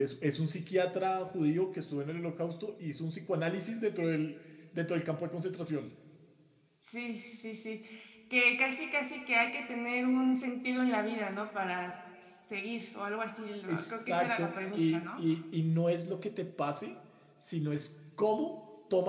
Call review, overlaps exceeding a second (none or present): present